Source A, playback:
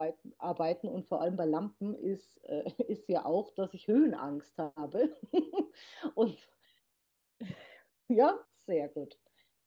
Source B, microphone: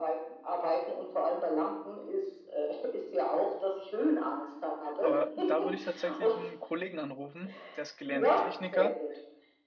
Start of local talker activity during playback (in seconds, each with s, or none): 5.0 s